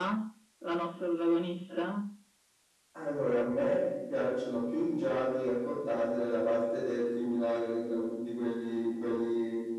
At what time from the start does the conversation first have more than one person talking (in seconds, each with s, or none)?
none